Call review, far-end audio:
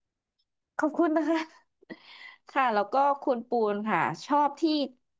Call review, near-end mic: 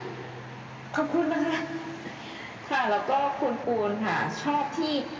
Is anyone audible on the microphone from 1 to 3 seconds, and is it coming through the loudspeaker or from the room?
echo only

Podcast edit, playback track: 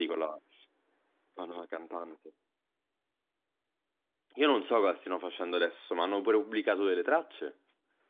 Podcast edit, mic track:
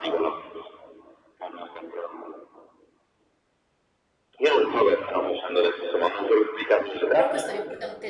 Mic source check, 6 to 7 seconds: echo only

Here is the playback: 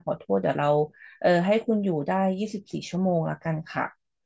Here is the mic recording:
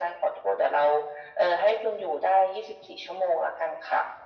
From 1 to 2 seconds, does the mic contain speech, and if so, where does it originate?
echo only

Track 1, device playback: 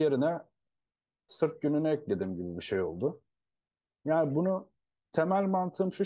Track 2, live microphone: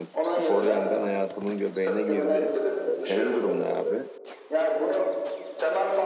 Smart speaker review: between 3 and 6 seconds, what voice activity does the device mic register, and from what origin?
both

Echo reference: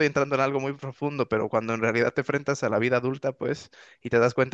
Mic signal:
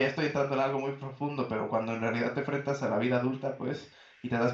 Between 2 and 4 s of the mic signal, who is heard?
echo only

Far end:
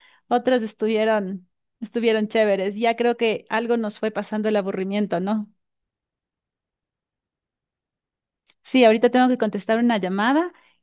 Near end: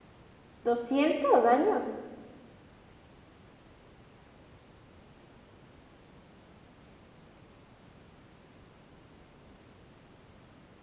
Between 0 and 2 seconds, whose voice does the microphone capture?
user only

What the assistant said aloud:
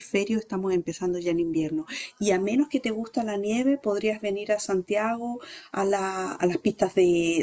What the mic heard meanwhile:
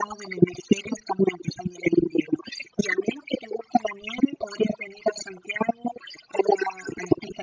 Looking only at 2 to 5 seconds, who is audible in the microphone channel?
echo only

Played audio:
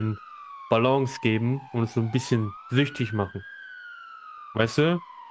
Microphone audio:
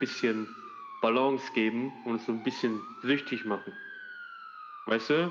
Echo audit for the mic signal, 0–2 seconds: echo only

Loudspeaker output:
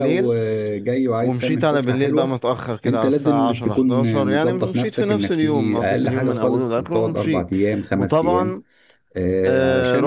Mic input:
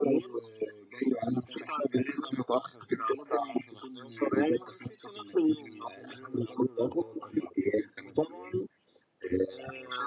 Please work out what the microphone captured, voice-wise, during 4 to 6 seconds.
echo only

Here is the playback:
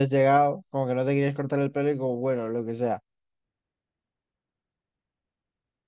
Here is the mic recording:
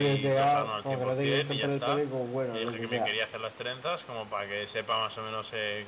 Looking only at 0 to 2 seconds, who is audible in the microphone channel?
both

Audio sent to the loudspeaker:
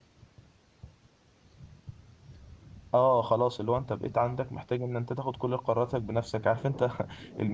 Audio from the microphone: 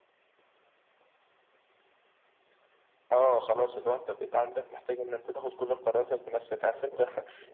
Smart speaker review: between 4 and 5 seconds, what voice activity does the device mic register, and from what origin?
echo only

